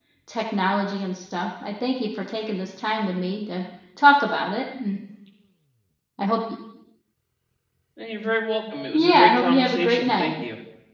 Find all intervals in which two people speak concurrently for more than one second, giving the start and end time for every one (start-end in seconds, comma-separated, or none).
8.9-10.3